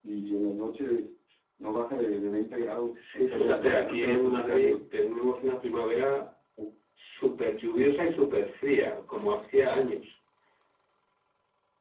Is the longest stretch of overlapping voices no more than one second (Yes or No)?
No